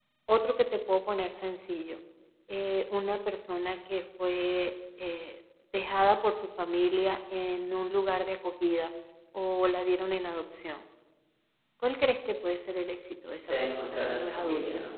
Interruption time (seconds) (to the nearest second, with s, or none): 13 s